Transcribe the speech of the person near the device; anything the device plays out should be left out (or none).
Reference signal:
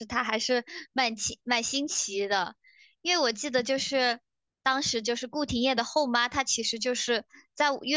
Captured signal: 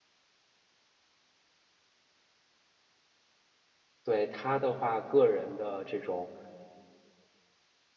对他的话，个人的这种